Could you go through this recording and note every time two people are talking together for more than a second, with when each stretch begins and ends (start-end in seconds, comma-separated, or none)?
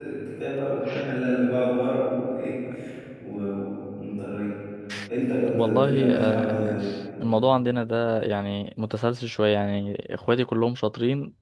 5.5-6.8